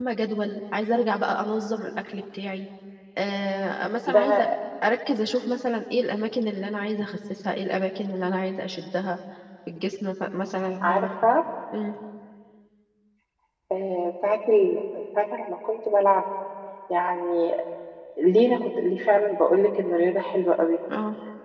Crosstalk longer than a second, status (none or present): none